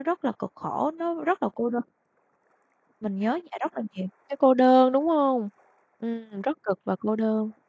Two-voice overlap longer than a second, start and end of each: none

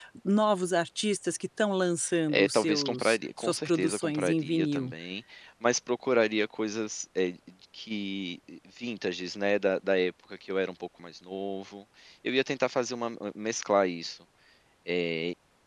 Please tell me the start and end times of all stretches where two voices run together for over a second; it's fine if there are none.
2.3-4.9

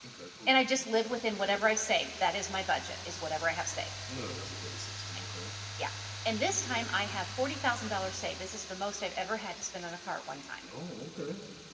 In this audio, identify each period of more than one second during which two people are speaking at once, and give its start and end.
none

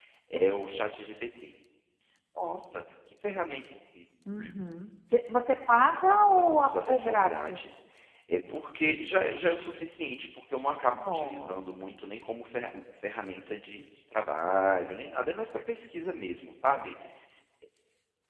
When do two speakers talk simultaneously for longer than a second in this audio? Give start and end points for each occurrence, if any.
5.8-7.7

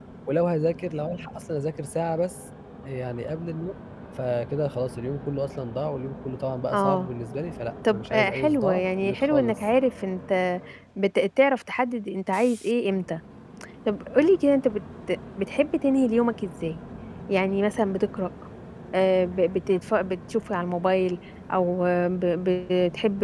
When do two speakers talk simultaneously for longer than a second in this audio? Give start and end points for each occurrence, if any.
7.9-9.6

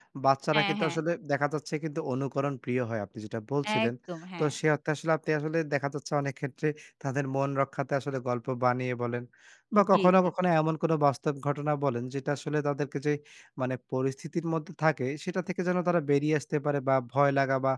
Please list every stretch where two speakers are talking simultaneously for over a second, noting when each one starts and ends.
none

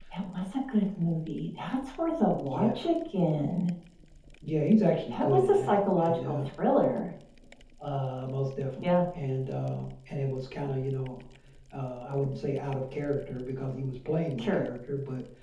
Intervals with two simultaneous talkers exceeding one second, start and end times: 5.2-6.4

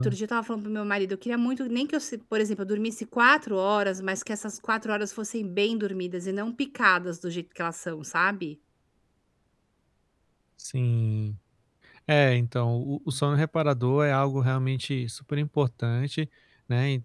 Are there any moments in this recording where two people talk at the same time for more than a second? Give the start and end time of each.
none

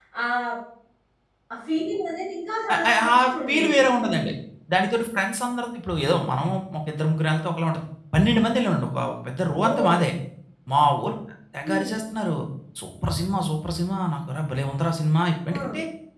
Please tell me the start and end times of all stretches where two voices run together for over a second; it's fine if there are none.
2.7-4.2

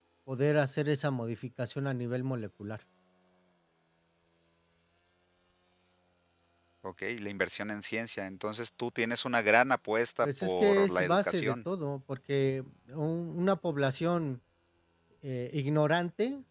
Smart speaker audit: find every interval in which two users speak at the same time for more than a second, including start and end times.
10.2-11.6

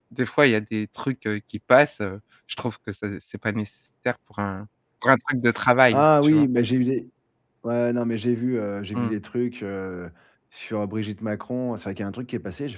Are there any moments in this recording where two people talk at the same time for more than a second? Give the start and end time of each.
none

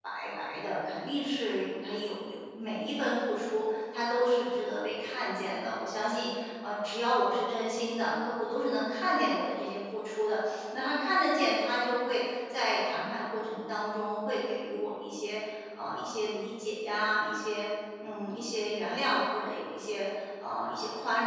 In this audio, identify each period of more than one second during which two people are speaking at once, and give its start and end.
none

